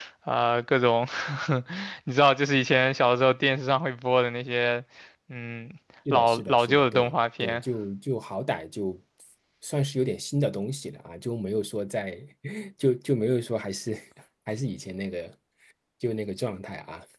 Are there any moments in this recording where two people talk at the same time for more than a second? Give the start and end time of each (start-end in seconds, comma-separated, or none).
6.1-7.6